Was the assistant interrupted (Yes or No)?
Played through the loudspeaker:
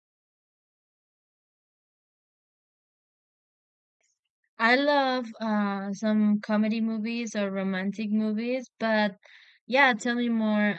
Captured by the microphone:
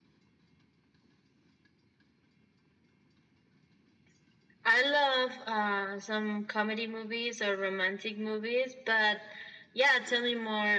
No